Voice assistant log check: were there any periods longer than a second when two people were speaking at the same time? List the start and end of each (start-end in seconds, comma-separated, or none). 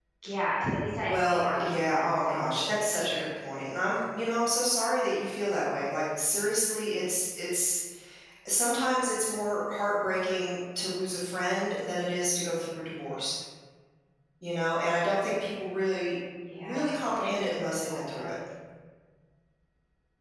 1.0-3.2, 16.5-18.4